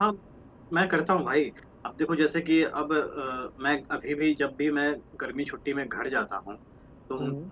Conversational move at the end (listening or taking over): listening